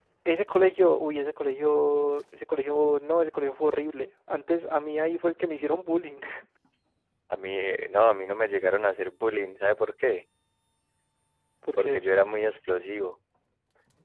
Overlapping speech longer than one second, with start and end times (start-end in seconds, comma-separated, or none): none